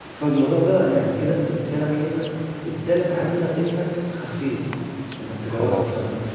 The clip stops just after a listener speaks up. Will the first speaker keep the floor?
Yes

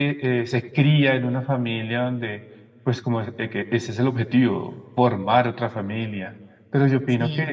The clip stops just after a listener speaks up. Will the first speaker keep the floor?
Yes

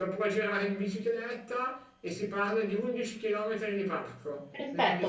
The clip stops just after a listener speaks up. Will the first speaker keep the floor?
No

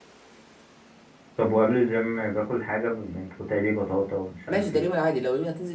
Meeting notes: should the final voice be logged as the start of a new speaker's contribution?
Yes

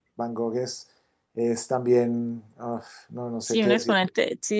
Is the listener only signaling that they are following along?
No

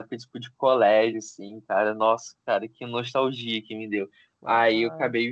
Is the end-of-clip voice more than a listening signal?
No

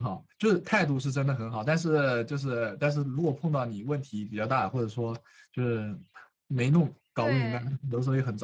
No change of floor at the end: Yes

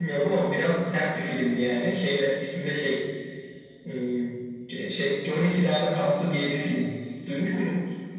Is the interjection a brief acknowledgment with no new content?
No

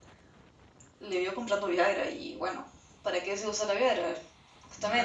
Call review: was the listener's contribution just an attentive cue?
No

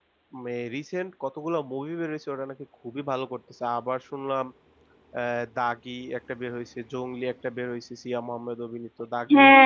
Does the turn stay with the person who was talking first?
No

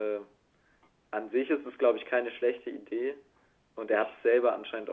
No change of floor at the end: Yes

